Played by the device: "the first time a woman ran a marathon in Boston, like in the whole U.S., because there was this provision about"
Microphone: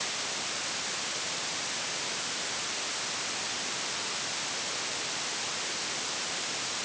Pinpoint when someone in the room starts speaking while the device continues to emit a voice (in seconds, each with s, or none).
none